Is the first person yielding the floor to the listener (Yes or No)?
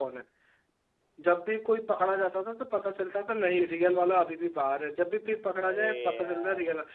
No